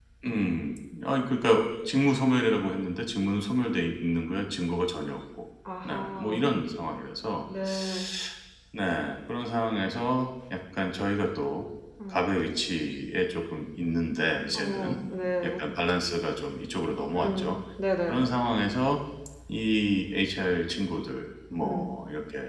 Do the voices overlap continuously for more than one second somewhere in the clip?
No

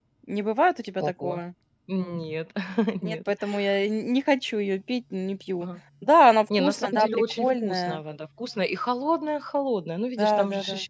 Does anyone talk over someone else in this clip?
Yes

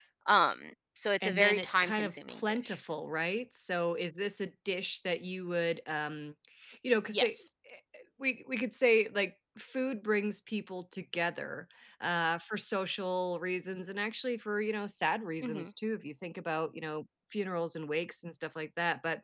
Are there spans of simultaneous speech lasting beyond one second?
Yes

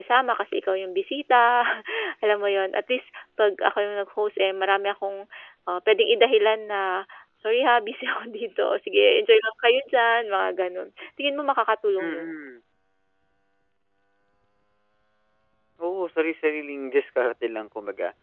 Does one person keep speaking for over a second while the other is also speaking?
No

